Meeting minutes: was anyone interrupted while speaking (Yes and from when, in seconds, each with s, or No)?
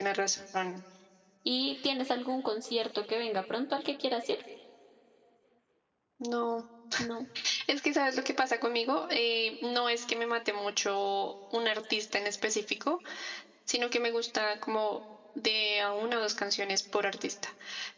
No